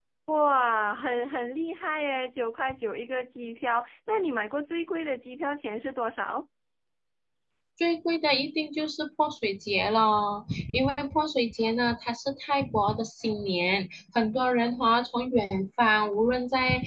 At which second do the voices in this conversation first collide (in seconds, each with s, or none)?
none